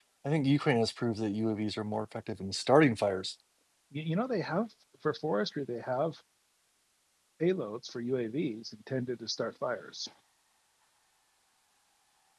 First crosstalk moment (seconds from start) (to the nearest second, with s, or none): none